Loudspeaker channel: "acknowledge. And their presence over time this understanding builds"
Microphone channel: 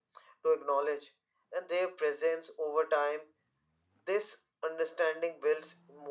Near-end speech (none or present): none